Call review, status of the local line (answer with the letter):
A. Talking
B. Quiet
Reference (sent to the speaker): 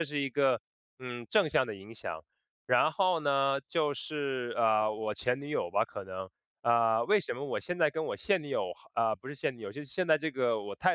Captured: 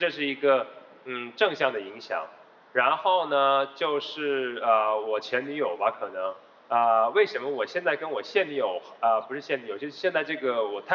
B